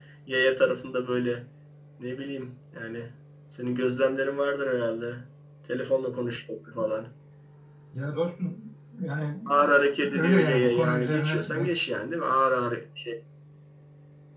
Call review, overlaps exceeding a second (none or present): present